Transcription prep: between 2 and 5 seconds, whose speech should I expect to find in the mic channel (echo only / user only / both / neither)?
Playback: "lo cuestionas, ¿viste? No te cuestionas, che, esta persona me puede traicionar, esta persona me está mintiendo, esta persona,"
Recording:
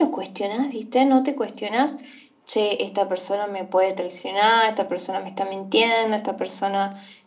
echo only